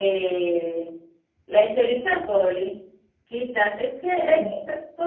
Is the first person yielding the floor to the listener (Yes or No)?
No